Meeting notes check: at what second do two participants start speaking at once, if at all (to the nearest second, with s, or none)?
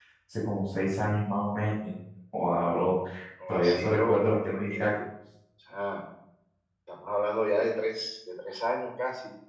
3 s